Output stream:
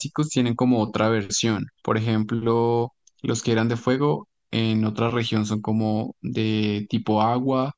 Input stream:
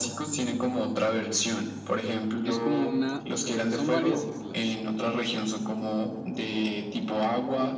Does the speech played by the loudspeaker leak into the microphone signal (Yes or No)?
Yes